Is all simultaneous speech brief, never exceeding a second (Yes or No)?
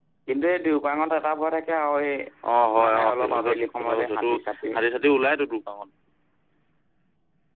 No